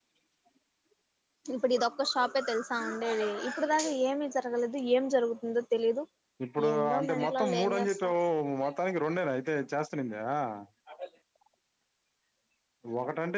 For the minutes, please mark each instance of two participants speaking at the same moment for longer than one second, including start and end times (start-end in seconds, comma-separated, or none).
6.7-8.1